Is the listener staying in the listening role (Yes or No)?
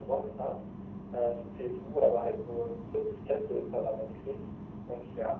Yes